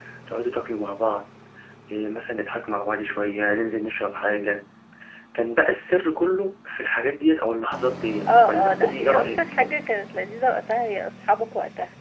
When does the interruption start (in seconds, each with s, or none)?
8.3 s